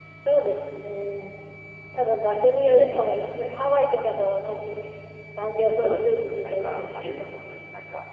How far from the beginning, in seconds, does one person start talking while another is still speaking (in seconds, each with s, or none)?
5.7 s